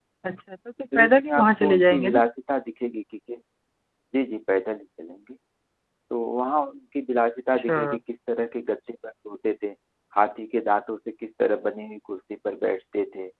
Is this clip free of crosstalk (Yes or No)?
No